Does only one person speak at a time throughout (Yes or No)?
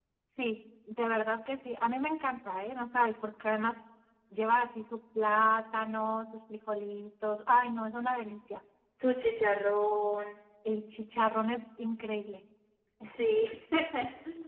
Yes